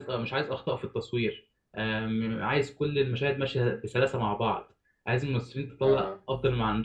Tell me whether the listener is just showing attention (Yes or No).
Yes